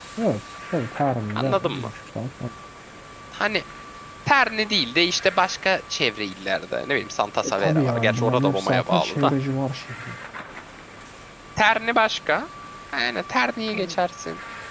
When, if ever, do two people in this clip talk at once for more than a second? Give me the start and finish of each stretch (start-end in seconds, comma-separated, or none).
7.4-9.3